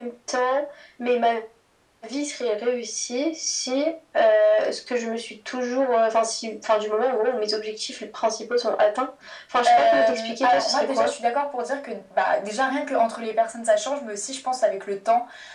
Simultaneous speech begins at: 9.7 s

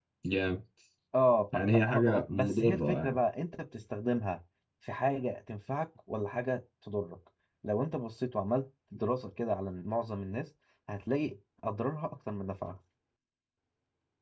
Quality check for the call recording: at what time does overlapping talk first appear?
1.5 s

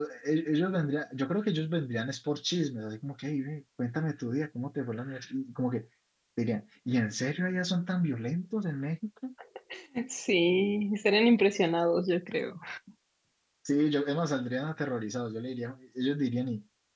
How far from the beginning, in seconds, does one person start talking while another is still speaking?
none

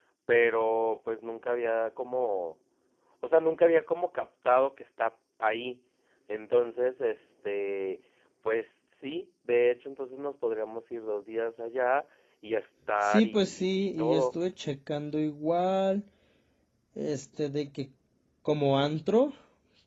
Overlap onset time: 13.0 s

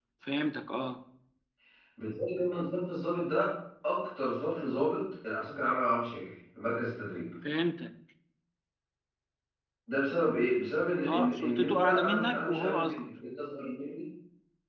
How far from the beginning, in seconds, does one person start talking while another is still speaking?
10.9 s

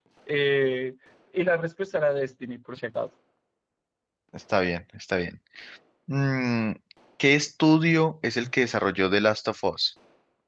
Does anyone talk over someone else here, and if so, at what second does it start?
none

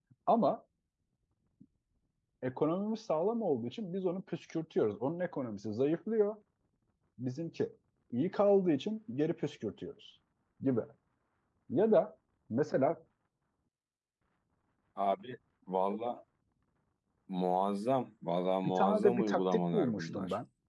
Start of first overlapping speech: 18.6 s

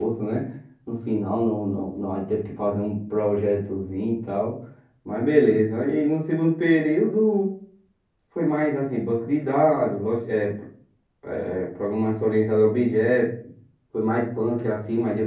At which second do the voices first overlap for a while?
none

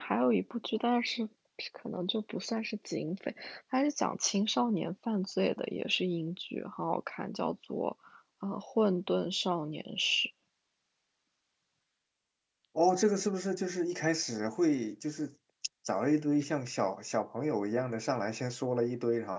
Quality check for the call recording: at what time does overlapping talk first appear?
none

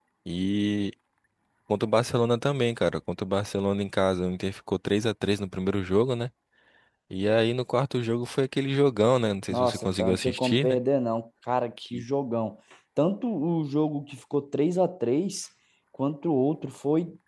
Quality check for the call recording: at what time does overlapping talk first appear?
9.5 s

